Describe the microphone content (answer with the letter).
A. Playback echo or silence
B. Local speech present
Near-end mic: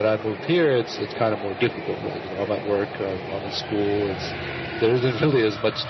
A